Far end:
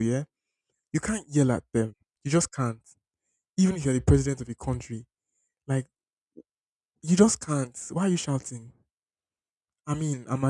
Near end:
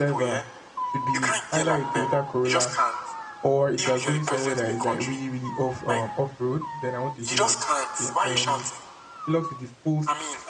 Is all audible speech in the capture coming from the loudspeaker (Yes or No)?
No